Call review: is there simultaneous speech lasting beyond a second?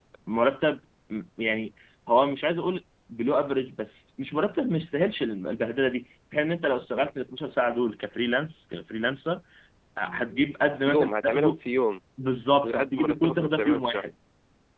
Yes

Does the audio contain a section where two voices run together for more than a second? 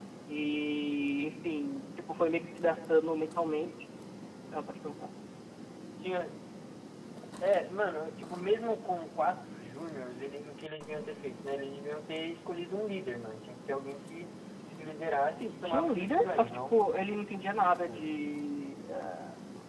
Yes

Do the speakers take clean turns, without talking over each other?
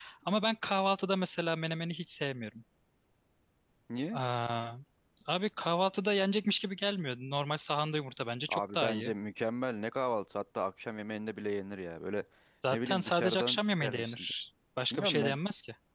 No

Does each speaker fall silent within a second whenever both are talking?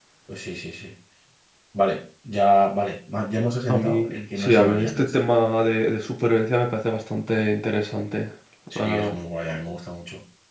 No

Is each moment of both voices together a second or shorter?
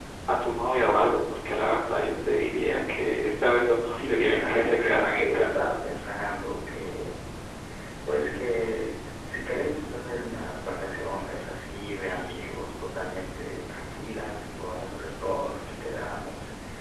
No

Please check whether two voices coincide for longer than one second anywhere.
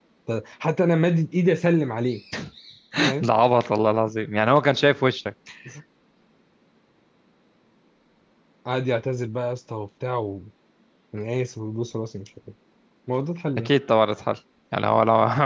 No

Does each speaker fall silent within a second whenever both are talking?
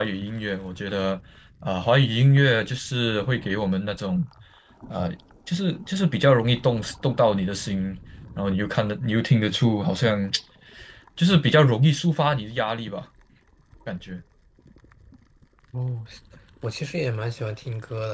Yes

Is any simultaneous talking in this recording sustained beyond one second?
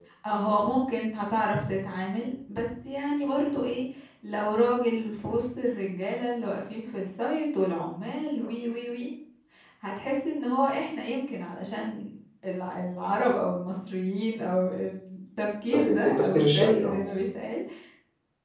Yes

